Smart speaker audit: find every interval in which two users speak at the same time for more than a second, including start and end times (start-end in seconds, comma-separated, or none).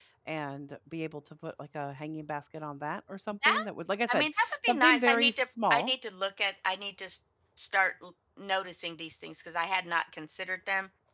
4.1-5.9